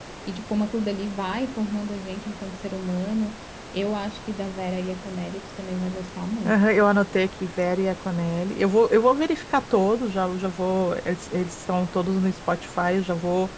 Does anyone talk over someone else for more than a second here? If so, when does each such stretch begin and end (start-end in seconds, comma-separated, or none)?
none